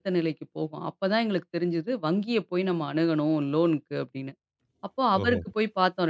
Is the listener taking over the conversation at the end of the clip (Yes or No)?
No